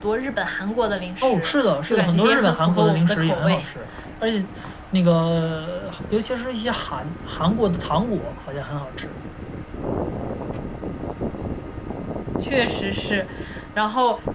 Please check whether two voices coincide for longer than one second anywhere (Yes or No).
Yes